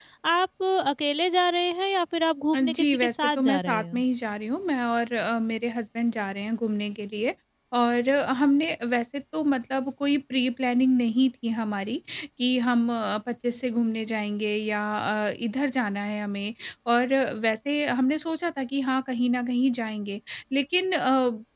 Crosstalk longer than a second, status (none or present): present